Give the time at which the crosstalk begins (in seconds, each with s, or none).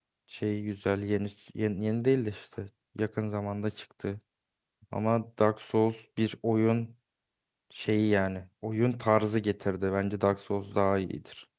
none